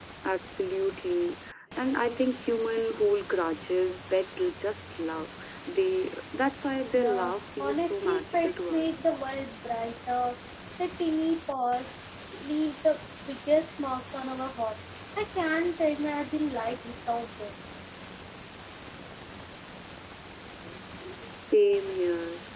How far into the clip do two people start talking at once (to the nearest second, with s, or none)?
7 s